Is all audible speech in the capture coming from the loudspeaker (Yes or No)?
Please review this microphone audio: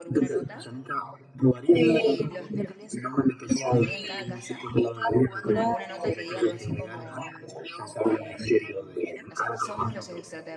No